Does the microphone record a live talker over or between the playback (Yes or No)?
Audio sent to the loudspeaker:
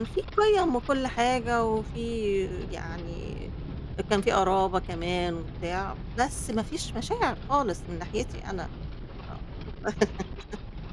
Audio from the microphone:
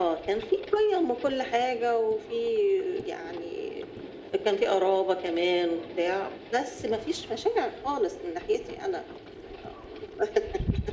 No